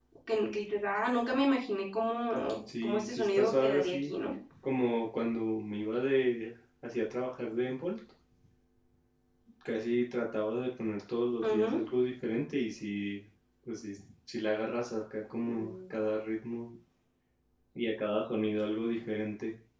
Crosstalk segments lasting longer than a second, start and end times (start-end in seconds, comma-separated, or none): 2.8-4.1